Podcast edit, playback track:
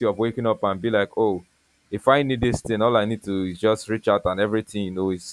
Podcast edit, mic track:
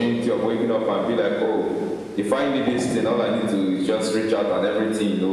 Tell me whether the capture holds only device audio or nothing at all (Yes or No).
Yes